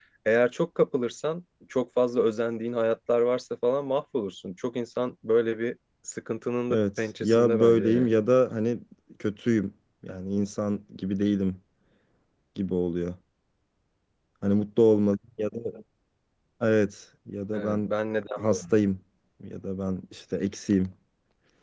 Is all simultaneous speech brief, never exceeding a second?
No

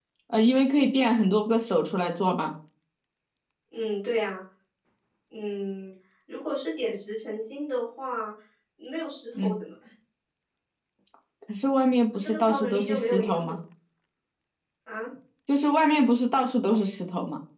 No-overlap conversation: No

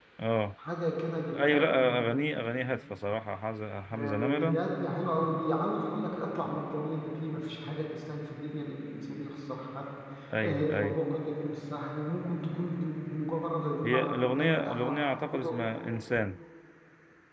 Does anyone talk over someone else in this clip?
Yes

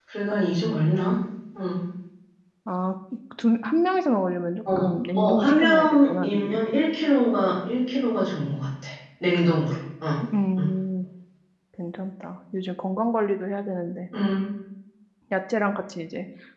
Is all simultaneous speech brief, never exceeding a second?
No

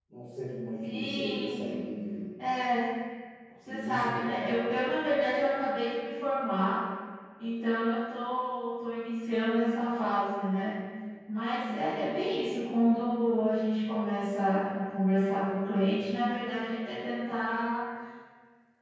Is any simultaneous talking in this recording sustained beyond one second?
Yes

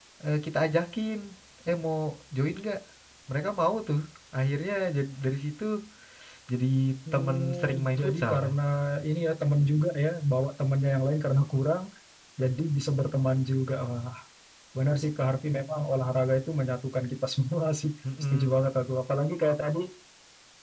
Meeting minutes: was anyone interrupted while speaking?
Yes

